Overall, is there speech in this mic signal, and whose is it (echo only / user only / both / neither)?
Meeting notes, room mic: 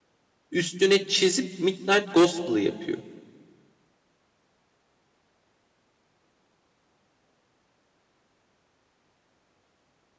user only